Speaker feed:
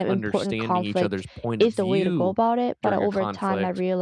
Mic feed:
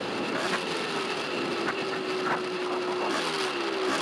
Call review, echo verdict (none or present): none